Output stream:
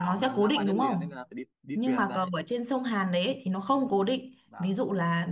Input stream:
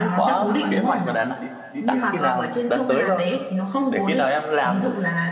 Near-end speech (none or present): present